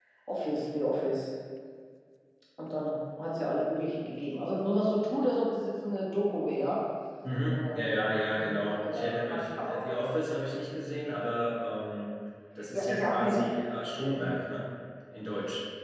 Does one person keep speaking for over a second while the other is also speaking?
Yes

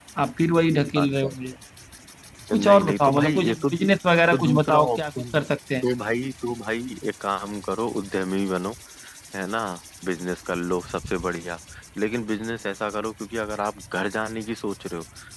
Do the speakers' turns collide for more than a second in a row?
Yes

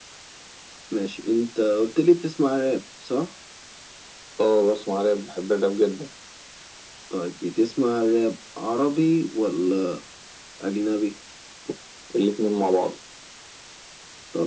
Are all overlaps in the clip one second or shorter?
Yes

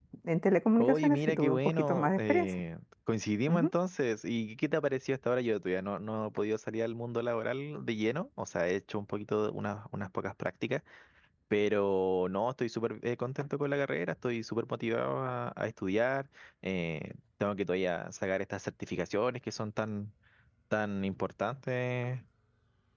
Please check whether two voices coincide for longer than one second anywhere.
Yes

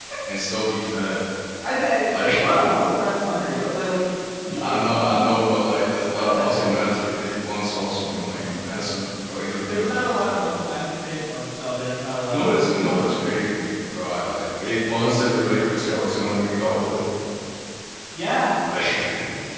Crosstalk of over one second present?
Yes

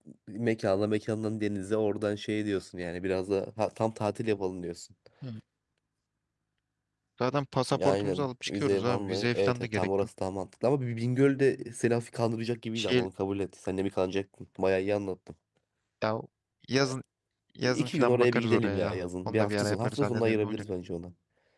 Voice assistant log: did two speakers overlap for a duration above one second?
Yes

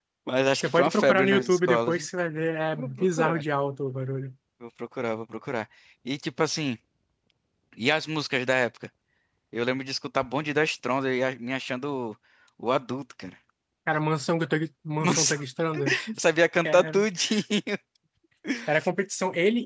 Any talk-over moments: Yes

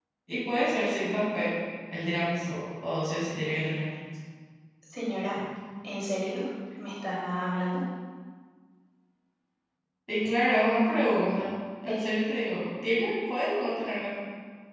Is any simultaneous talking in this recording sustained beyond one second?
No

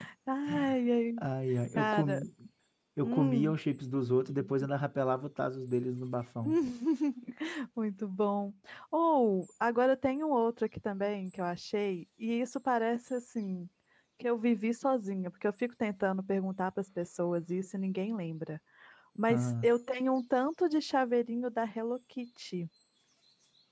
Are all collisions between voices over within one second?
Yes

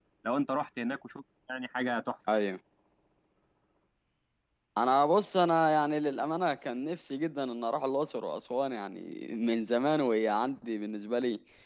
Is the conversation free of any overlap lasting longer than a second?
Yes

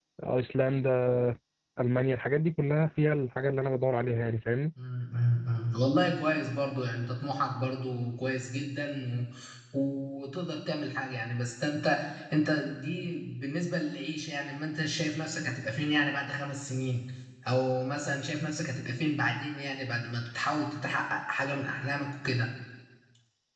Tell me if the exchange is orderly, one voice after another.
Yes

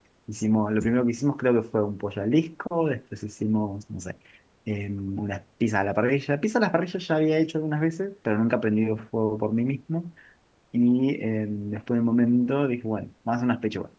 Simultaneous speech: No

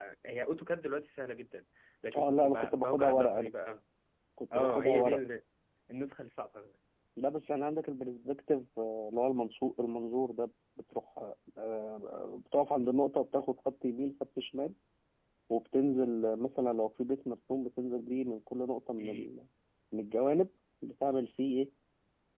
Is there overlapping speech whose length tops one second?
Yes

